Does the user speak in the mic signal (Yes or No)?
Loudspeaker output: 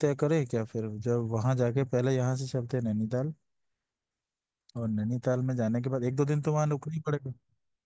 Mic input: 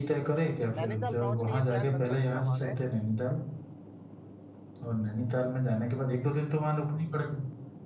Yes